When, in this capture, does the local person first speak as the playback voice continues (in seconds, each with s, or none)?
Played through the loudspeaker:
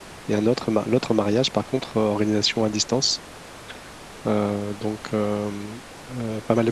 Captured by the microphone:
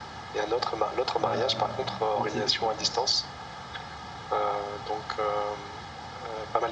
1.2 s